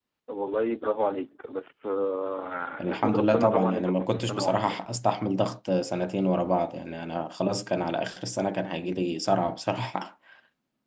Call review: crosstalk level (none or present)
present